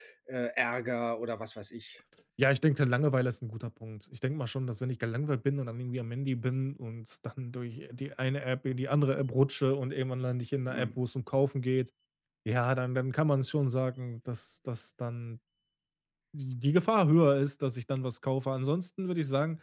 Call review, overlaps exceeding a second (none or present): none